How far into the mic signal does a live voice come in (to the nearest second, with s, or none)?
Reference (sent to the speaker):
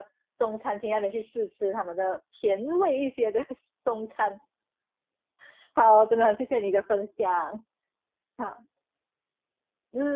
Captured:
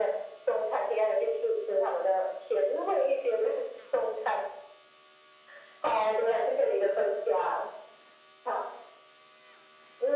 none